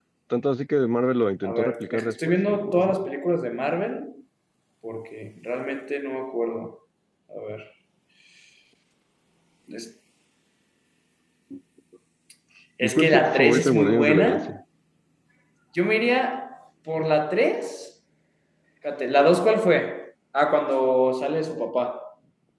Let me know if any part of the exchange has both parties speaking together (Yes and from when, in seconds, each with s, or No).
Yes, from 1.4 s